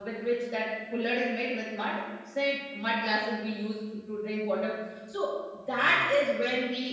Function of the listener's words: listening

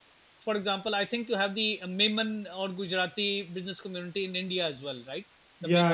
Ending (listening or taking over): taking over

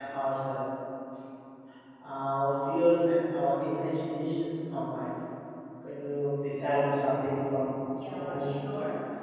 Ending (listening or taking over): taking over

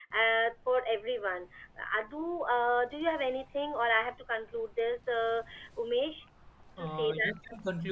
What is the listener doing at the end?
taking over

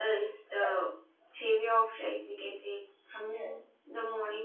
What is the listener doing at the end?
listening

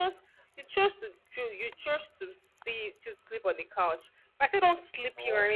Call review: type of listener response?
listening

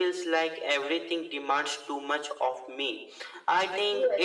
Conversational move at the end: listening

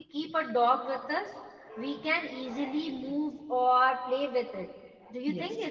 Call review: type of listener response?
taking over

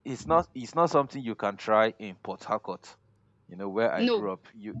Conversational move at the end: listening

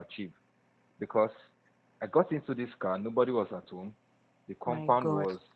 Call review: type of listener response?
listening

